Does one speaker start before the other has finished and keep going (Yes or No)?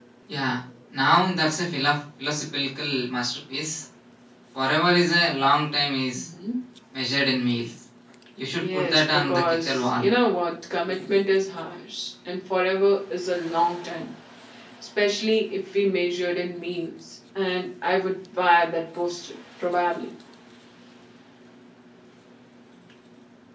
Yes